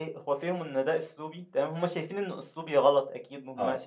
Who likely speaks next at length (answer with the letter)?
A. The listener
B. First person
B